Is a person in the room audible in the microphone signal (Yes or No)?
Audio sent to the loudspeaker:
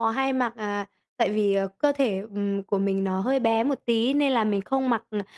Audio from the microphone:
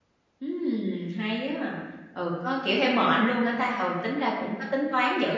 Yes